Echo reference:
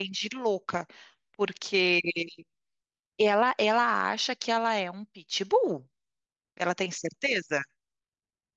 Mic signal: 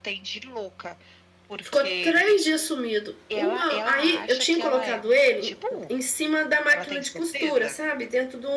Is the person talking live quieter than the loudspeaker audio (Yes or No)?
No